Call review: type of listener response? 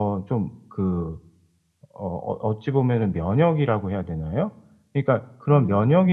listening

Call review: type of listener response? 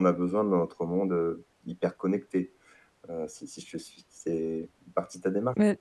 taking over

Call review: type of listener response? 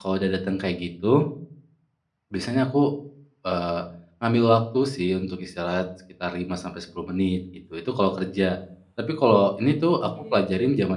listening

